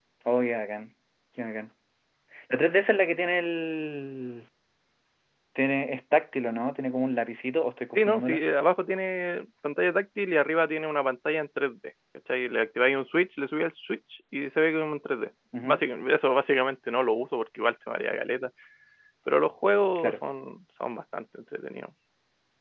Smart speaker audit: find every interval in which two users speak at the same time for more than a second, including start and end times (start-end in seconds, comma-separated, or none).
none